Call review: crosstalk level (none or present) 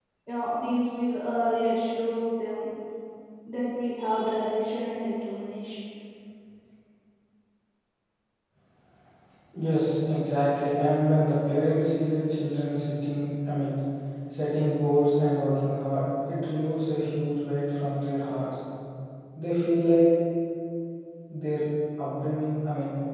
none